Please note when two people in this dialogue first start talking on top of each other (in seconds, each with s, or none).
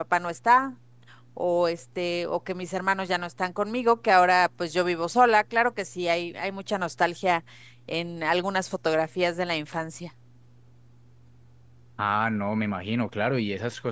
none